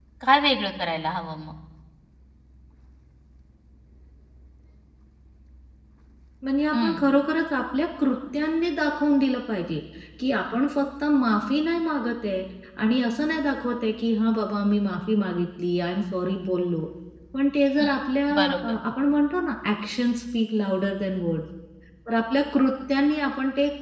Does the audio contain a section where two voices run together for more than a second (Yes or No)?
No